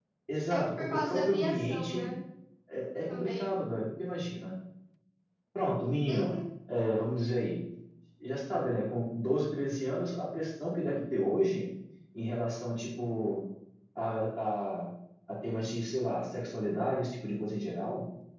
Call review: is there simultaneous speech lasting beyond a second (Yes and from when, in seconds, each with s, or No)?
Yes, from 0.5 s